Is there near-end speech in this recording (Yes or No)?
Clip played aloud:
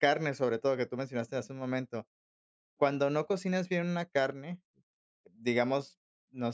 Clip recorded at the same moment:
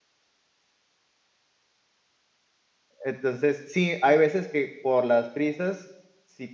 Yes